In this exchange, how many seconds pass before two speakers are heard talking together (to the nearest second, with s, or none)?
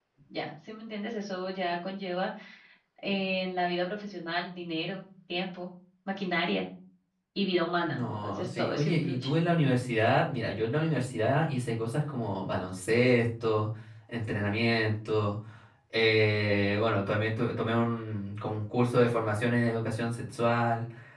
8 s